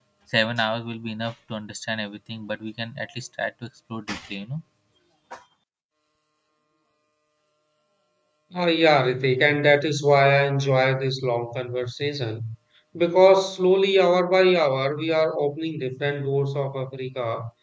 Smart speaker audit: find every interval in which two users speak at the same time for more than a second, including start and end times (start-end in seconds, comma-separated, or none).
none